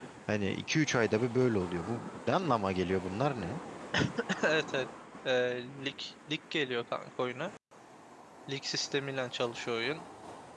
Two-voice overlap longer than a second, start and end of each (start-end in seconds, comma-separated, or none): none